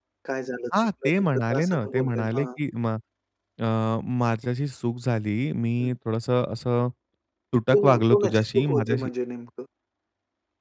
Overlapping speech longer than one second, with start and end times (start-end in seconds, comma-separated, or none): 0.8-2.5, 7.7-9.1